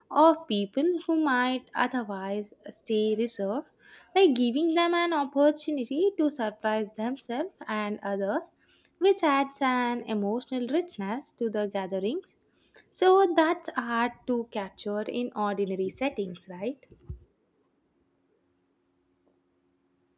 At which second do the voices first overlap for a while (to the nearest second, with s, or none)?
none